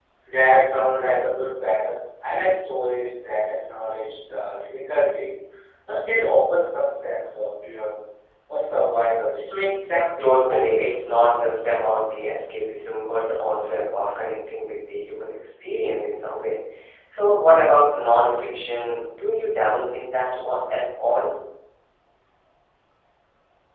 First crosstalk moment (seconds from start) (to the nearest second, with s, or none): 10 s